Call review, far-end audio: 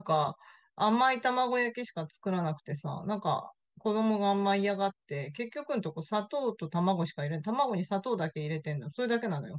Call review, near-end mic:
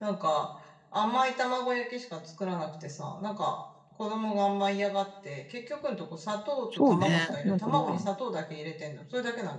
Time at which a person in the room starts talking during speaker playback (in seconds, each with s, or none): 6.7 s